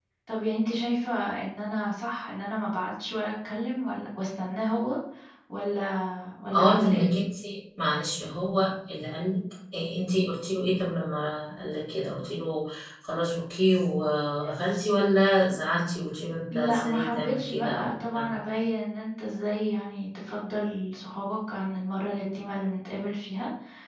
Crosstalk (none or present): present